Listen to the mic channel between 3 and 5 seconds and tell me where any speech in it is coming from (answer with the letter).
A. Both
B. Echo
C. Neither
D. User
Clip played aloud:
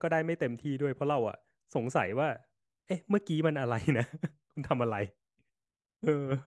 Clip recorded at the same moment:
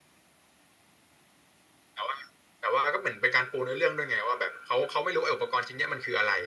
D